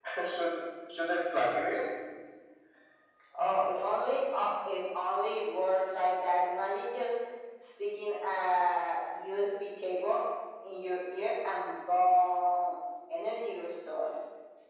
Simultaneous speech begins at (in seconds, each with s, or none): none